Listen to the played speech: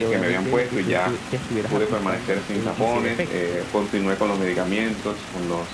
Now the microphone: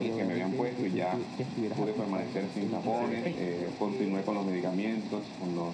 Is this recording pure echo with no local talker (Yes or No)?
No